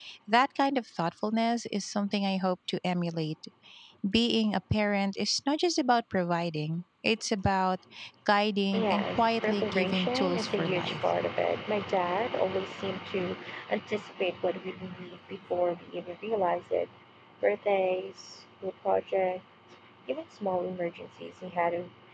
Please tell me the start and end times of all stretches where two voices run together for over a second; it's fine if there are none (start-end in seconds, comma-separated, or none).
8.7-11.0